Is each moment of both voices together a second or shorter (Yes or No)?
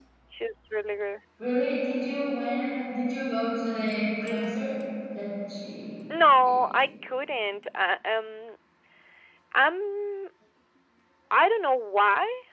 Yes